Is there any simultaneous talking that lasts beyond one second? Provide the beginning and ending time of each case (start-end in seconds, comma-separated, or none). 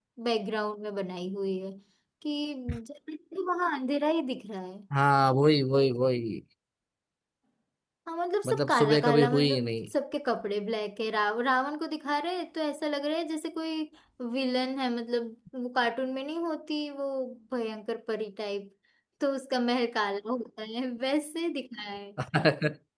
8.4-9.9